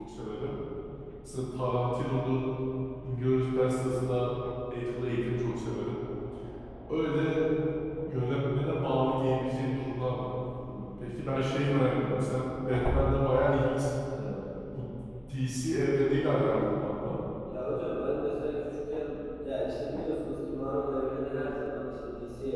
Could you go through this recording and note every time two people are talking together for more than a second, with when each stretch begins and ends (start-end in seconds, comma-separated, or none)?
none